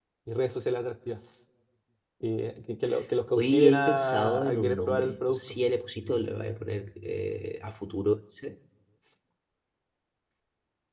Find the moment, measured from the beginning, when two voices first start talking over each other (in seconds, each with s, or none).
3.3 s